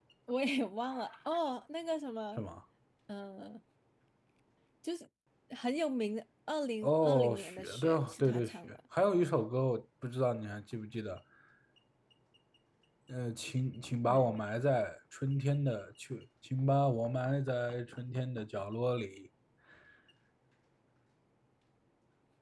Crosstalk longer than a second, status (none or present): present